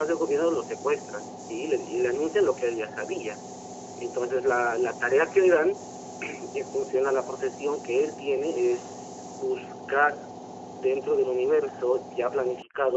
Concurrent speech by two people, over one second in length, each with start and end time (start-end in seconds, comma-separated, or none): none